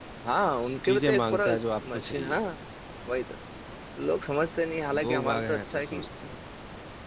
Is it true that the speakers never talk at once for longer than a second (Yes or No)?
No